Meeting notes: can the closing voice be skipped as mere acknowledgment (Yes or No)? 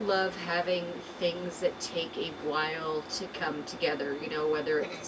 Yes